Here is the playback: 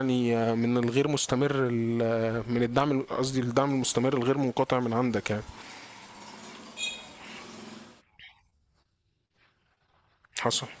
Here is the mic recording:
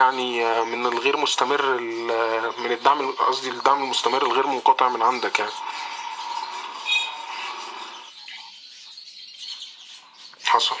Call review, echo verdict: present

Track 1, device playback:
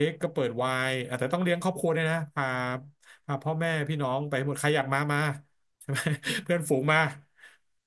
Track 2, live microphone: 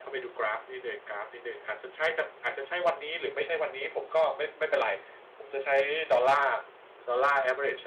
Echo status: none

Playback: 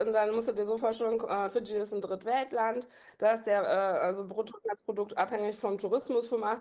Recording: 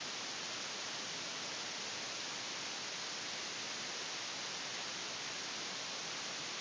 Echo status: none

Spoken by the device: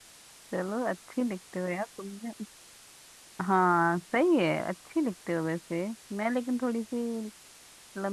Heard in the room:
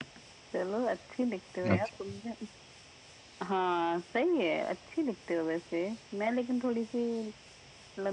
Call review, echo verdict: present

